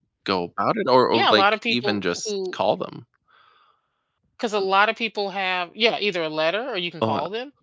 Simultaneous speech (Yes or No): Yes